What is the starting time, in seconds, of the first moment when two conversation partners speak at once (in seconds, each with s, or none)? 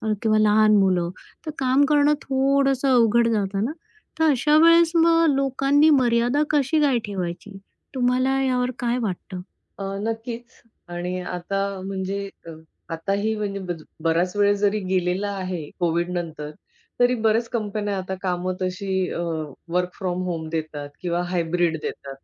none